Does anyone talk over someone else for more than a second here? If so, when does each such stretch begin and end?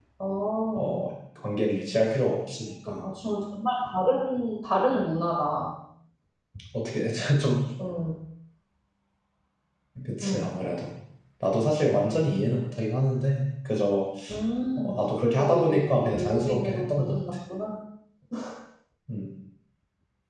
14.8-17.2

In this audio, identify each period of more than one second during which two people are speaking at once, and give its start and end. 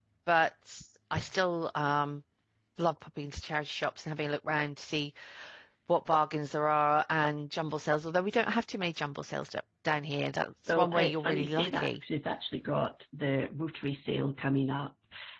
10.7-12.0

